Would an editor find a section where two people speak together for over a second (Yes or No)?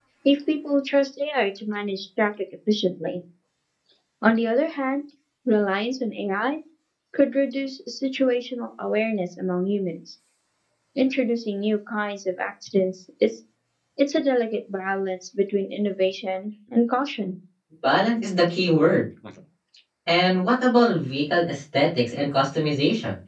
No